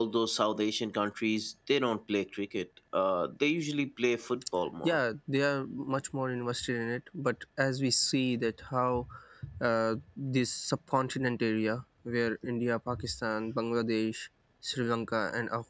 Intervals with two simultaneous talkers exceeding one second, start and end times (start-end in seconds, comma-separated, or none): none